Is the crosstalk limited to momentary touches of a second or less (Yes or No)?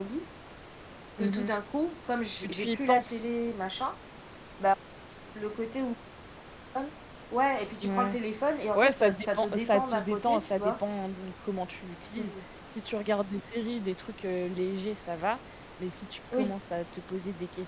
No